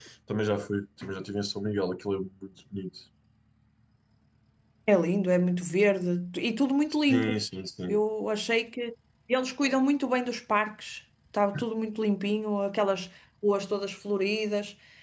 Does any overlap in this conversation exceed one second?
No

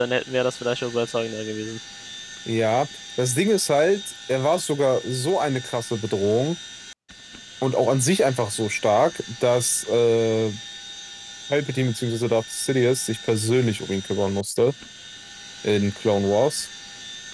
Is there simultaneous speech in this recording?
No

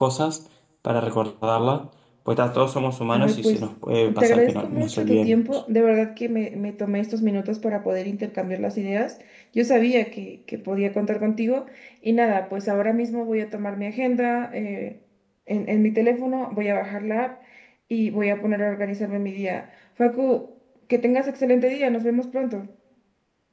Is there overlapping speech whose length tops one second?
Yes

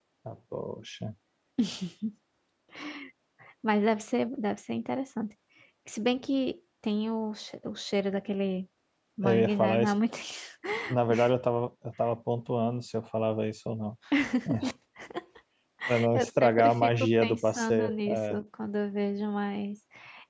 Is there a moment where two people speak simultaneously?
Yes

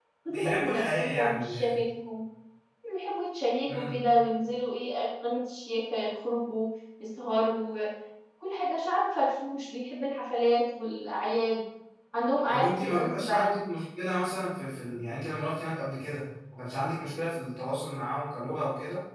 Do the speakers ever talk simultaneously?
Yes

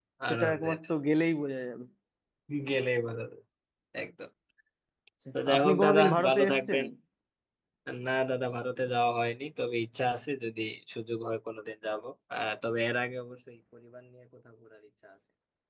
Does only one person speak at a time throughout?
No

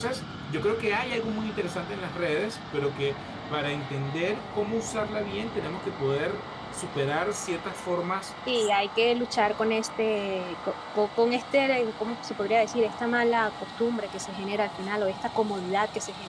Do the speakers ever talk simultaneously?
No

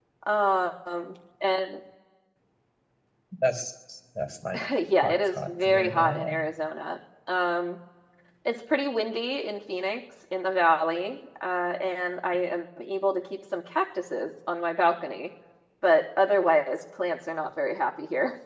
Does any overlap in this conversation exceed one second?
Yes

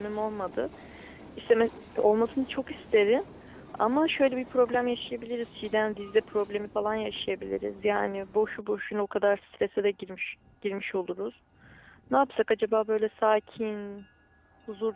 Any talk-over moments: No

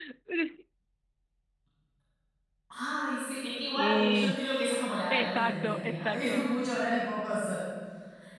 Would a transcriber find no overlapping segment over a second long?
No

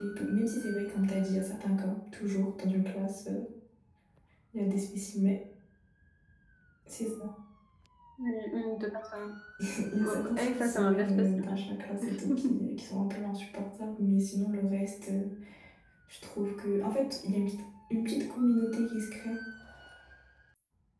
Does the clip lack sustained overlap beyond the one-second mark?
No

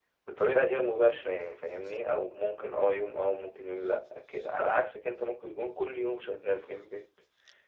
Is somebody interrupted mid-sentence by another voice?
No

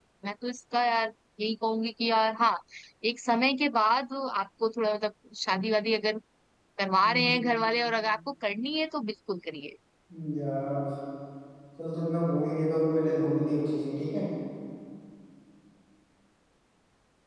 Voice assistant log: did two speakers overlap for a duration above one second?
No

